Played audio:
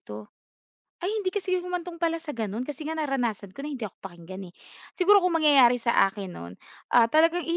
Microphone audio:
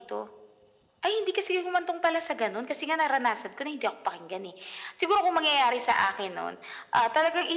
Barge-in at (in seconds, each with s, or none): none